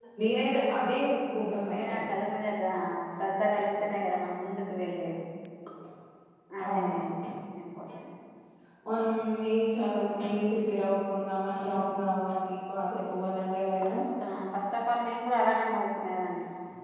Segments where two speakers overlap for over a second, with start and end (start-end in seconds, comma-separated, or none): none